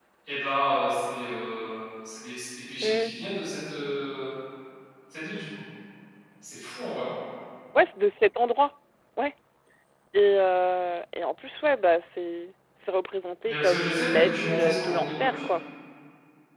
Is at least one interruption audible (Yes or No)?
Yes